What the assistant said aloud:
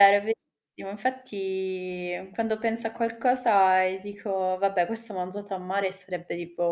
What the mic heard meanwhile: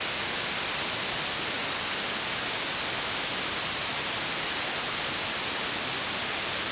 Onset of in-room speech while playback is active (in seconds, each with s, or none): none